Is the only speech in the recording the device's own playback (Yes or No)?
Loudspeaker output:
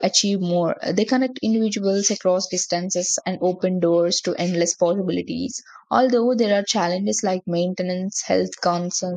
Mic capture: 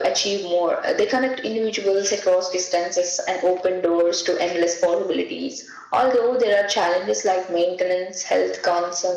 Yes